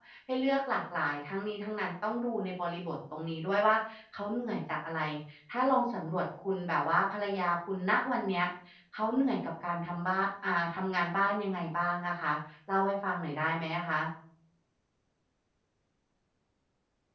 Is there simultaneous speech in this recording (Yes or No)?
No